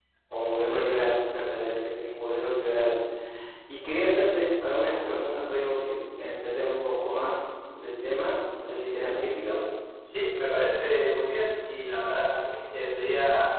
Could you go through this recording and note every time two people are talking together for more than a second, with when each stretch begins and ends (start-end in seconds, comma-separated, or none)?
none